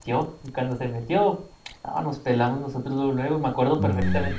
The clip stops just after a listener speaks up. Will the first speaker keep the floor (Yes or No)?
Yes